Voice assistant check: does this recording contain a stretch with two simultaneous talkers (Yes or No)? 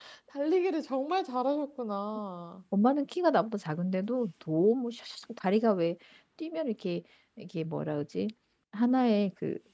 No